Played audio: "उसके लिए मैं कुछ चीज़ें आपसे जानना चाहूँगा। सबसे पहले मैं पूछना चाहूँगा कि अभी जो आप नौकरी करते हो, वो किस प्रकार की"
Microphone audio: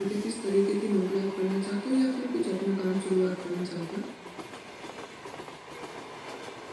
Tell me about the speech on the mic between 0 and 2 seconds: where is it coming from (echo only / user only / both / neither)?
user only